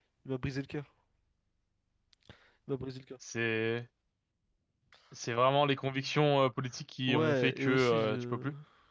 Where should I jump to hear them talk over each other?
7.1 s

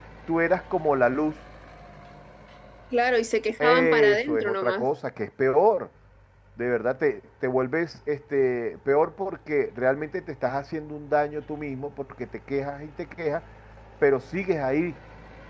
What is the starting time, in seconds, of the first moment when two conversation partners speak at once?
3.6 s

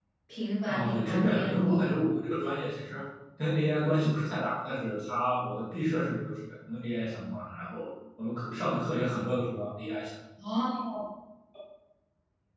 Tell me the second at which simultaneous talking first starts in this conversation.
0.7 s

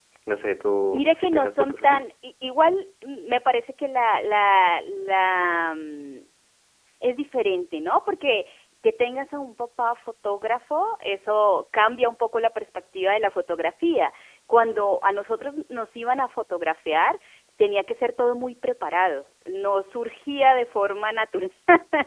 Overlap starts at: 0.8 s

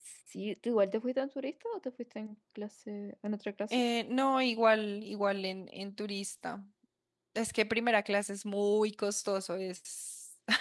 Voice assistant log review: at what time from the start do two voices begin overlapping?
none

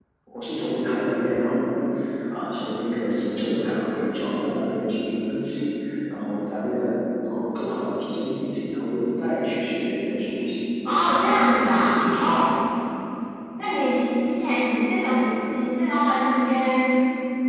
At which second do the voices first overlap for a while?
10.9 s

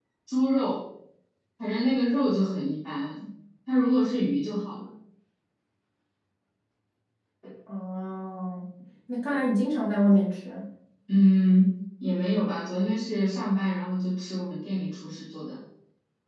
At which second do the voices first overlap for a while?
none

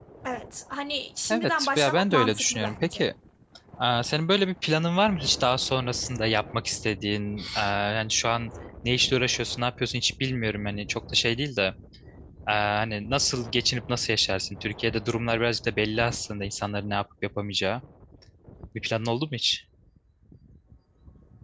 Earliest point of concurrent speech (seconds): 1.3 s

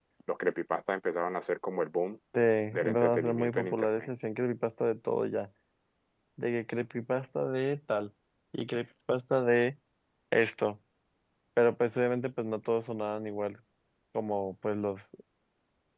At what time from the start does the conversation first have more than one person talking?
2.7 s

